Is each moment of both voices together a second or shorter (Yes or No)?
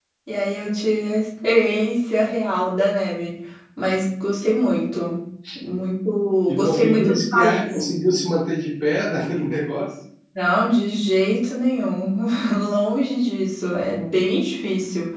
No